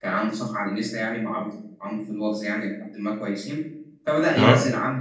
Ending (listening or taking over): listening